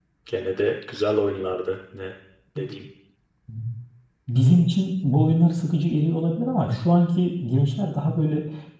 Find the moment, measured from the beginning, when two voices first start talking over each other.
none

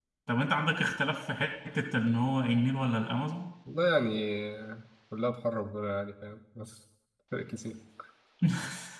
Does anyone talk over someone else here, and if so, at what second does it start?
none

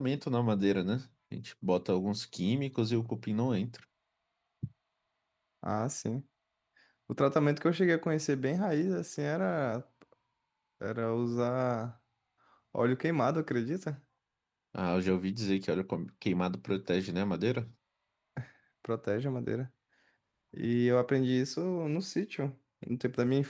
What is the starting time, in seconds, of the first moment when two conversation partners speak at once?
none

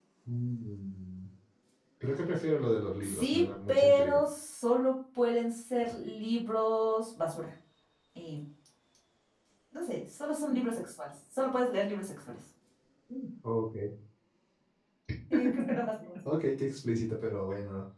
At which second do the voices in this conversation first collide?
3.0 s

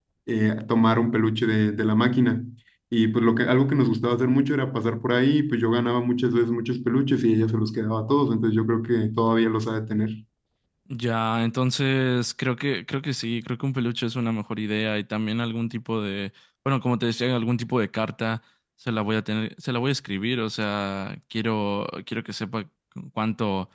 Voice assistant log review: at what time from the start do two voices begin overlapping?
none

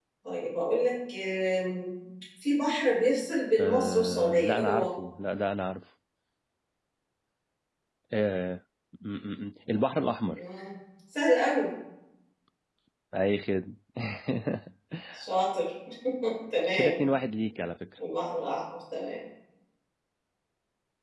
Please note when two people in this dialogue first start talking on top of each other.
3.6 s

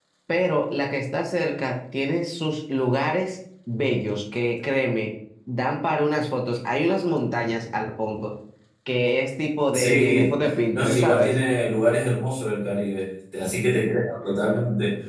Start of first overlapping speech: 9.7 s

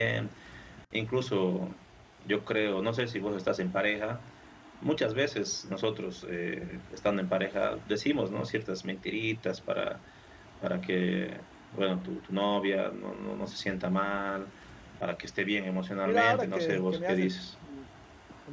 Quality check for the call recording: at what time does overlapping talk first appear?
16.0 s

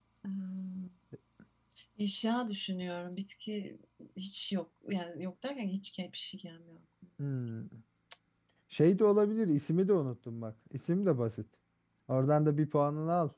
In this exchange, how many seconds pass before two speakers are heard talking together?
none

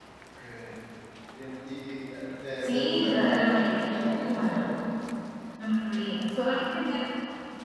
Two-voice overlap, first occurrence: 2.6 s

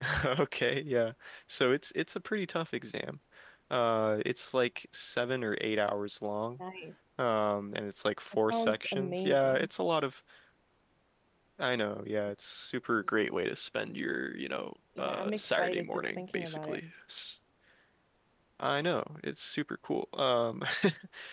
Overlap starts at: 8.4 s

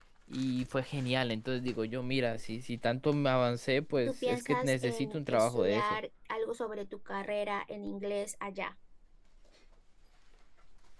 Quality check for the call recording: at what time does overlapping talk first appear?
3.9 s

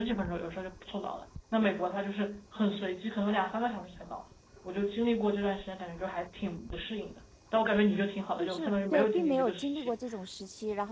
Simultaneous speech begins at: 8.4 s

